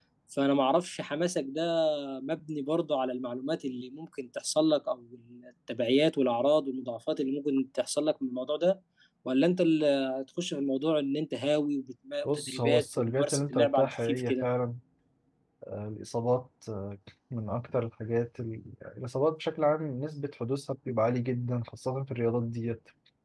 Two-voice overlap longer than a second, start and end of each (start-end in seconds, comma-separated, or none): 12.2-14.4